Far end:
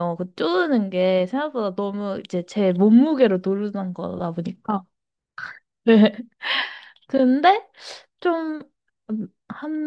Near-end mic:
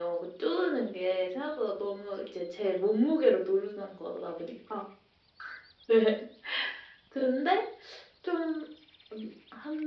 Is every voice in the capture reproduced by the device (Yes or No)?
Yes